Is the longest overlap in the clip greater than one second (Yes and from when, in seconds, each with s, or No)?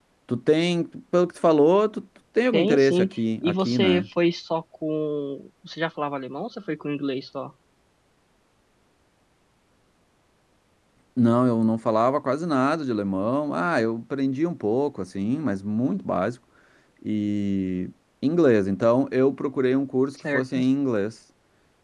Yes, from 2.5 s